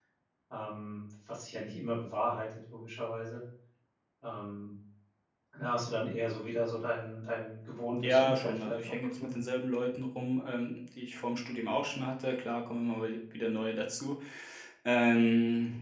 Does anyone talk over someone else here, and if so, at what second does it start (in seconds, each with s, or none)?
8.0 s